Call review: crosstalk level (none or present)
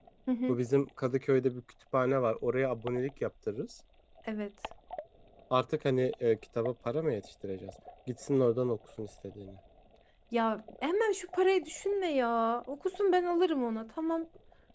none